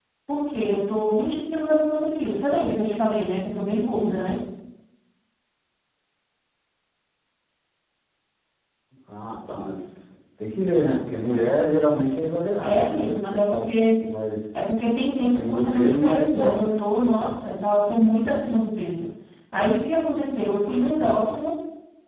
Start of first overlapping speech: 12.6 s

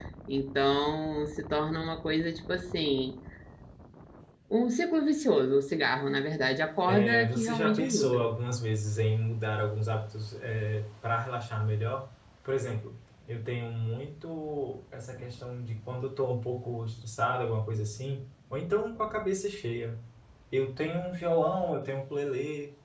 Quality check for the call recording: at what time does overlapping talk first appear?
6.9 s

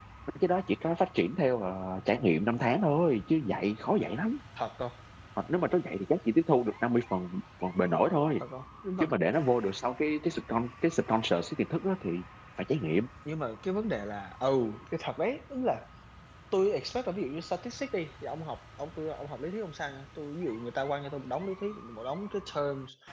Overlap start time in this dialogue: none

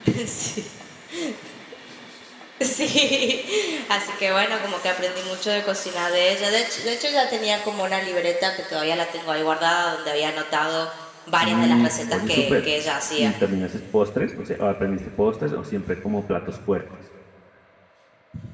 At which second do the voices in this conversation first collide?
11.4 s

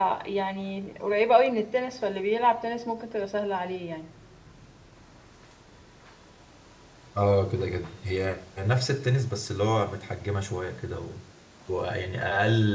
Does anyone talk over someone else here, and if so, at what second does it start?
none

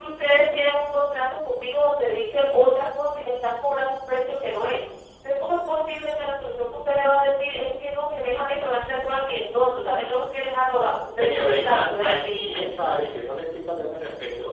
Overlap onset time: 11.1 s

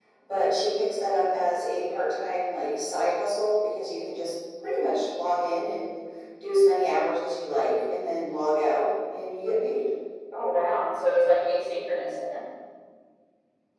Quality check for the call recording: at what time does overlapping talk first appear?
none

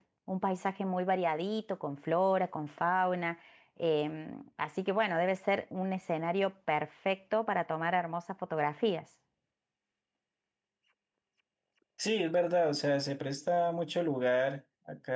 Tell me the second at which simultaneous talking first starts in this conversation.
none

